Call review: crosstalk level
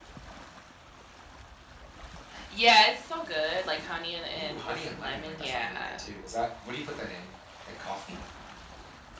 present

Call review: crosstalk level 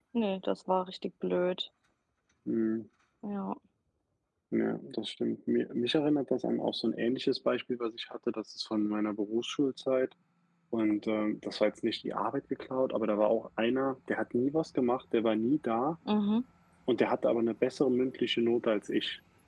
none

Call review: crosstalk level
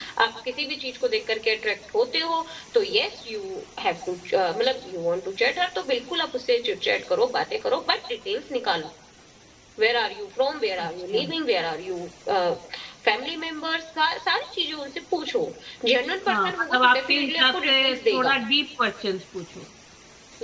present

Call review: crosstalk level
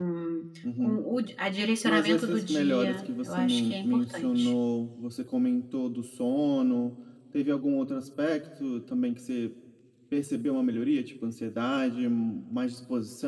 present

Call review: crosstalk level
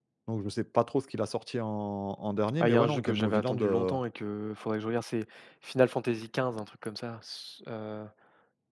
present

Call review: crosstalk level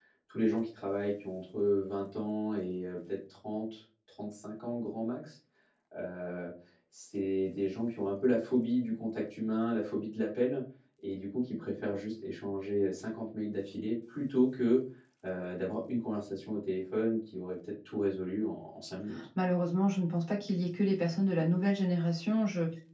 none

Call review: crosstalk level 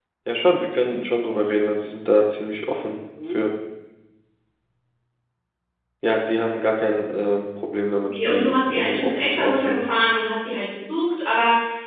present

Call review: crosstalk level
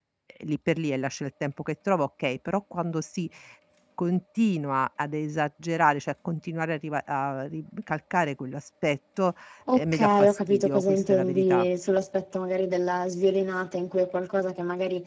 present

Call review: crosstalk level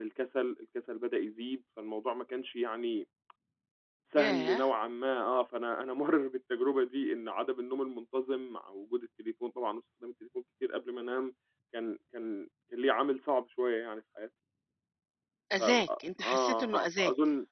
present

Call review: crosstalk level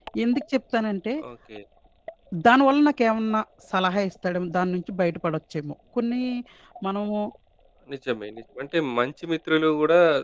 none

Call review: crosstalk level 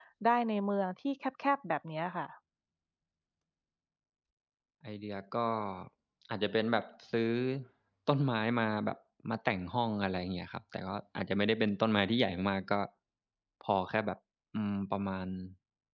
none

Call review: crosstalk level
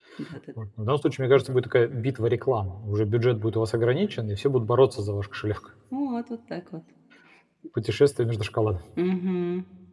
none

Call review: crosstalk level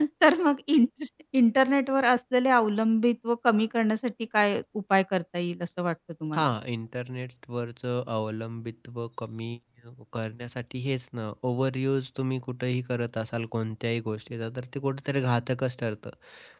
none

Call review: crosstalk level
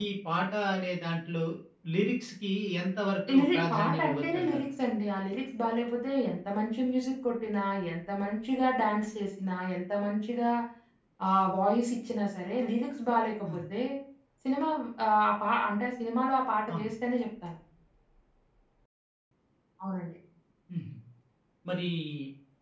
present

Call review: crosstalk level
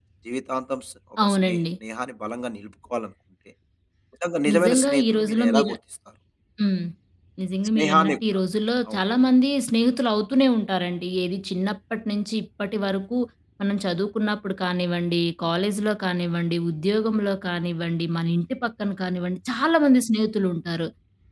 present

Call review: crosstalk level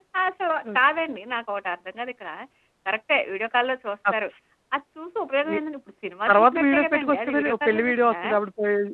present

